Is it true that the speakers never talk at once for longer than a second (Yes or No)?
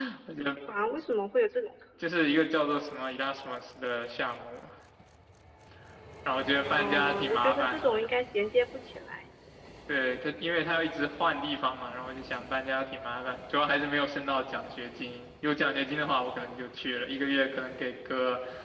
No